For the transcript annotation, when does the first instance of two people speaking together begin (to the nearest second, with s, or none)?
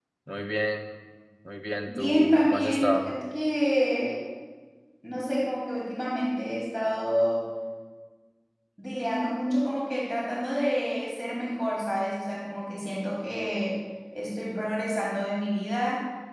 2 s